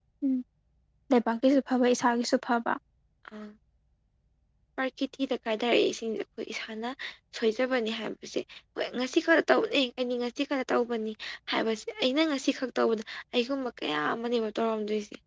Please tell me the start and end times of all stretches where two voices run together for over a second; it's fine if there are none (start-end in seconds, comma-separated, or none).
none